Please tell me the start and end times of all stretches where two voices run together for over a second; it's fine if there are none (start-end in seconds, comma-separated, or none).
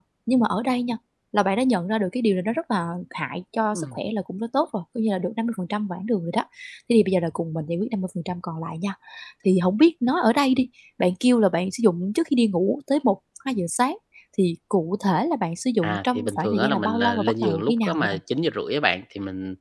15.8-18.2